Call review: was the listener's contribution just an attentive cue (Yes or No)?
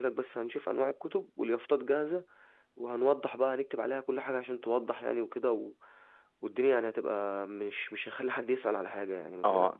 No